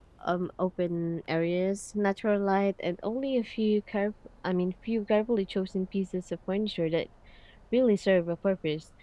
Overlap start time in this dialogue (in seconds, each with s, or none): none